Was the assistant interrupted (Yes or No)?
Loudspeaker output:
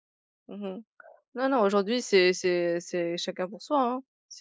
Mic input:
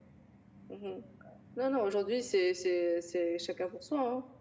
No